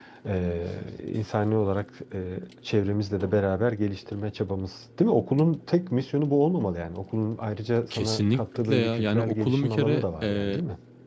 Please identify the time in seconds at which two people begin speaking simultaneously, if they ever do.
7.9 s

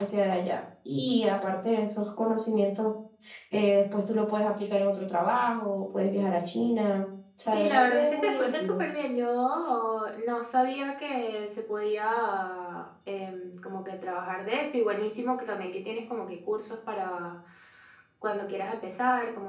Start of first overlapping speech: 7.4 s

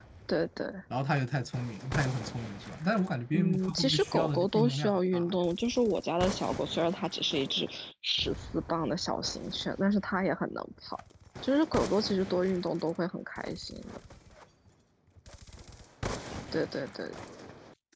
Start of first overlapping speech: 3.3 s

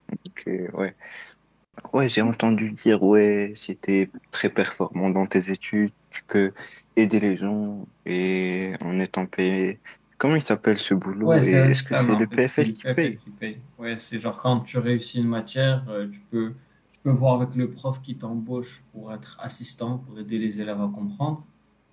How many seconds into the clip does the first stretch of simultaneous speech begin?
11.2 s

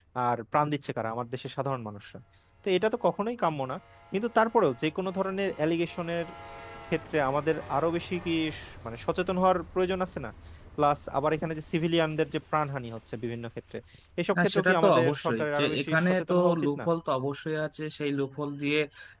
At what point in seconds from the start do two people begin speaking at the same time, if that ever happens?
14.4 s

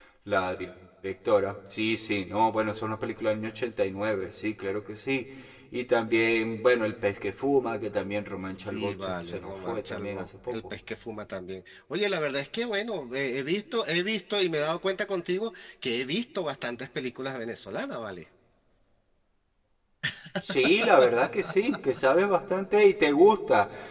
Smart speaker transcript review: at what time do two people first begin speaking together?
8.6 s

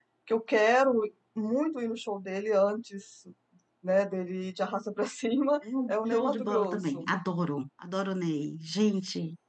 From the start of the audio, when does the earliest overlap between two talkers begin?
5.6 s

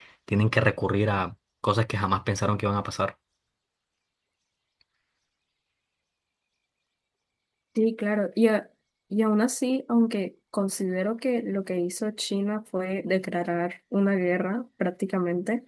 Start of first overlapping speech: none

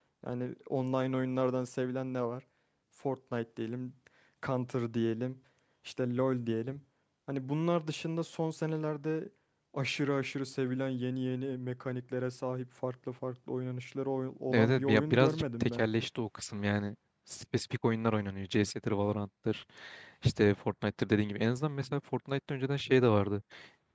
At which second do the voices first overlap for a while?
14.5 s

